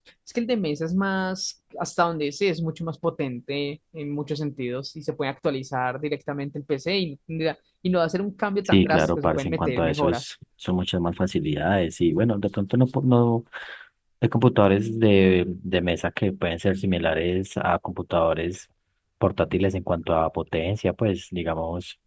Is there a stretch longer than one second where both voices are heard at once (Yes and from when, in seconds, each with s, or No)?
Yes, from 8.6 s